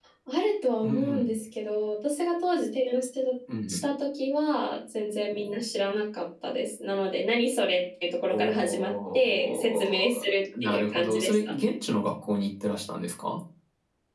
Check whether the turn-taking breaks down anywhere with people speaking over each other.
Yes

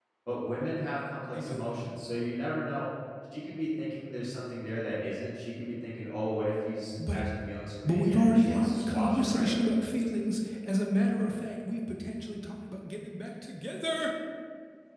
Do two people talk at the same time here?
Yes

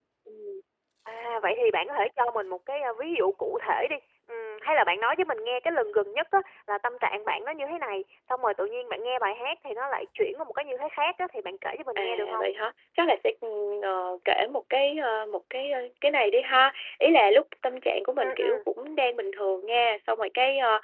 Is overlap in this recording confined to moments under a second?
Yes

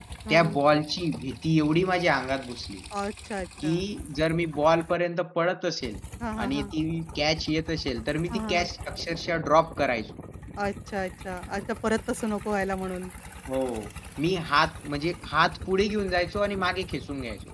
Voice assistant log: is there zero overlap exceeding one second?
Yes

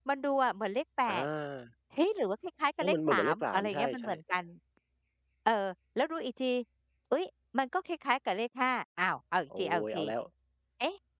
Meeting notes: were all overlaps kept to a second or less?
No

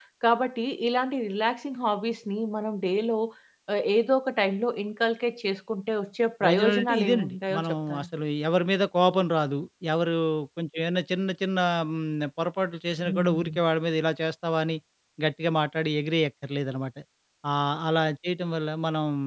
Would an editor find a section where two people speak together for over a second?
Yes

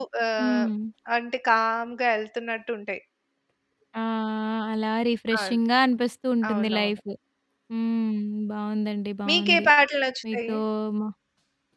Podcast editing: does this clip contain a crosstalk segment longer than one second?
No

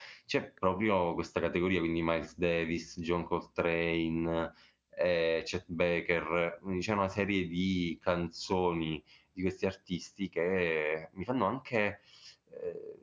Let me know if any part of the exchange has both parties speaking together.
No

